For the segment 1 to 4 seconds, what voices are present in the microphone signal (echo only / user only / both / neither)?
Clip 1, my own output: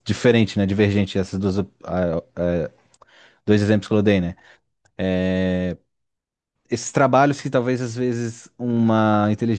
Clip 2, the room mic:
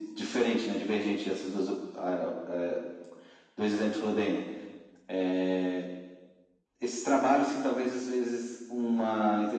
echo only